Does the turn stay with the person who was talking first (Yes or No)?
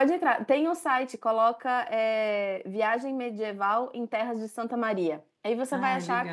Yes